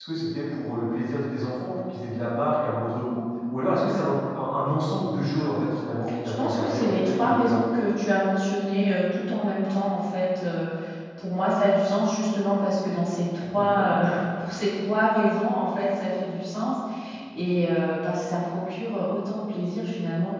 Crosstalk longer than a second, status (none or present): present